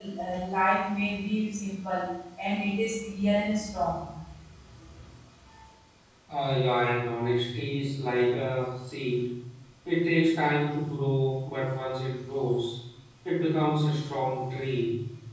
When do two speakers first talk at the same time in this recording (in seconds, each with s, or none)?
none